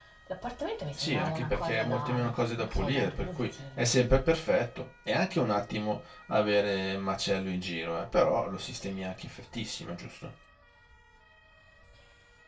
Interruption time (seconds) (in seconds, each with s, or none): 0.9 s